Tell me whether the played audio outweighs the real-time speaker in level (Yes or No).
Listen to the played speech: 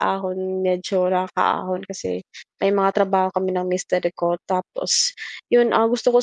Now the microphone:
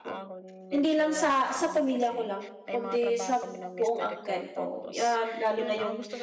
No